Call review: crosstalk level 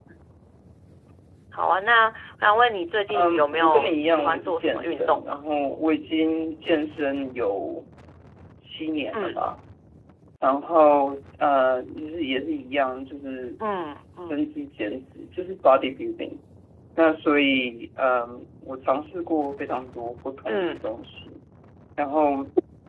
present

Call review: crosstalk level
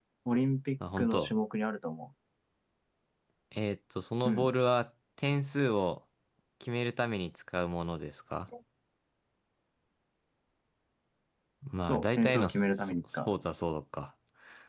present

